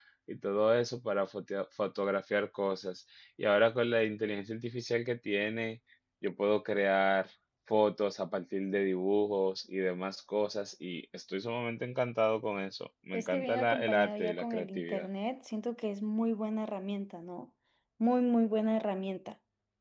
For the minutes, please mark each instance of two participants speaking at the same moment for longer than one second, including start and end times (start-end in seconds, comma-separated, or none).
13.1-15.1